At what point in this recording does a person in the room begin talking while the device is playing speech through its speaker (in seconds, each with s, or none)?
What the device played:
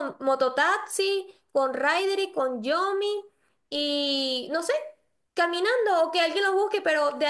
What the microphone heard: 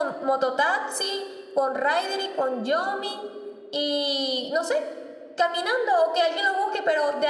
none